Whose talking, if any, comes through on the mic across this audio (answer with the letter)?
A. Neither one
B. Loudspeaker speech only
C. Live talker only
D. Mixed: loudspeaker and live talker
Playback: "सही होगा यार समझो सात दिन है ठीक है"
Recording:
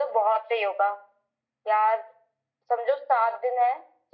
B